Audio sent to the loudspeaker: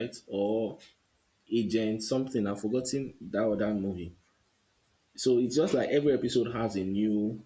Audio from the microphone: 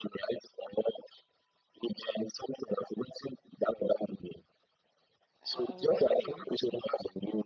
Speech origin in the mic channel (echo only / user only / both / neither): both